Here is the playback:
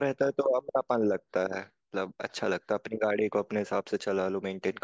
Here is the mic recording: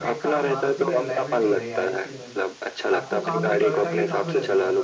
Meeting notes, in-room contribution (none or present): present